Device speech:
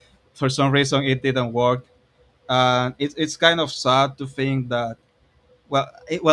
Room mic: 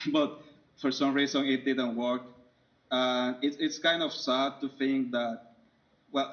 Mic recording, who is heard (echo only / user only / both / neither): echo only